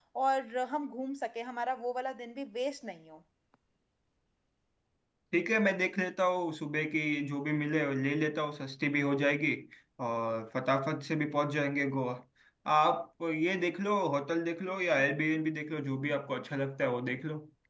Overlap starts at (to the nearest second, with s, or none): none